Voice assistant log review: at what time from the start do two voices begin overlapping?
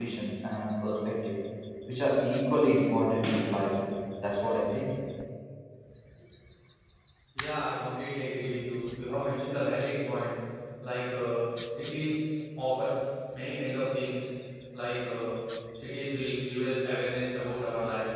none

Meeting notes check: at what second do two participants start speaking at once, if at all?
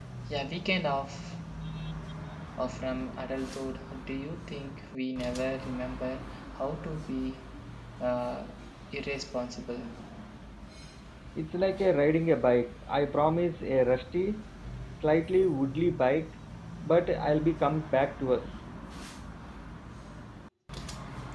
none

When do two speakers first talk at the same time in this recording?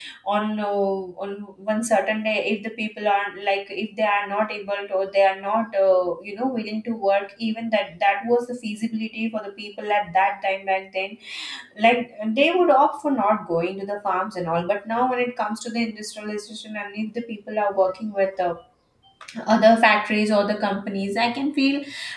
none

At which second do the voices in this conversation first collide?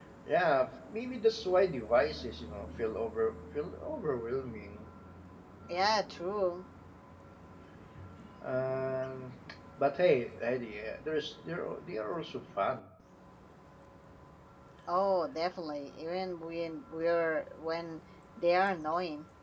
none

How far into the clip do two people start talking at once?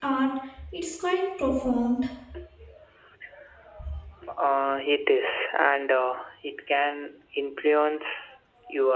none

